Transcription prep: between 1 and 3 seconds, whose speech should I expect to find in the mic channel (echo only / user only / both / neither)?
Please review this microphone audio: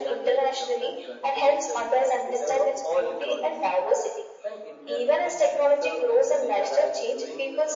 echo only